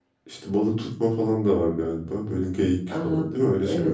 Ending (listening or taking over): taking over